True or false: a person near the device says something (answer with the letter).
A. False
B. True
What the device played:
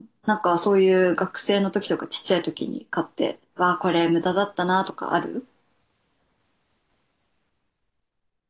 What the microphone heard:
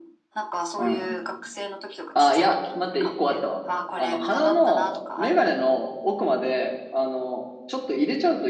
B